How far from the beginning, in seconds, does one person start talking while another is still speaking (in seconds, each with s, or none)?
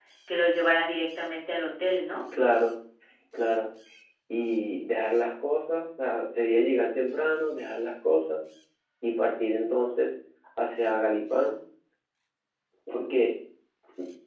none